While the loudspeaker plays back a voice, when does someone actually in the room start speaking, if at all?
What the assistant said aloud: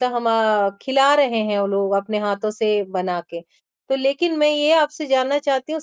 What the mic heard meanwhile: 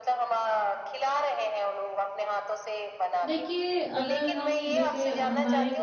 3.2 s

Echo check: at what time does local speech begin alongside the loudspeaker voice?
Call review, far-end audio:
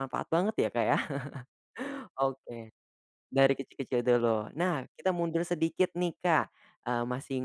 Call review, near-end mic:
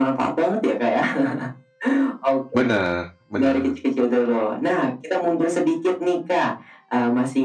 2.5 s

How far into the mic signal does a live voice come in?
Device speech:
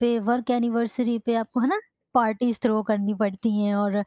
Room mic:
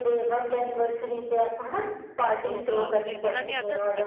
2.4 s

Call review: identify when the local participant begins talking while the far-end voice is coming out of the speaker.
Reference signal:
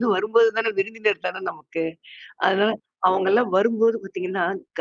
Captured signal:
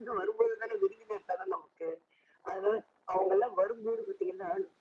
none

